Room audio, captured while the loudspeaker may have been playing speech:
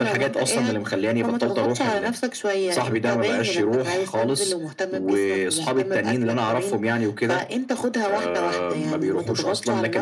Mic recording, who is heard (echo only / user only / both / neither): echo only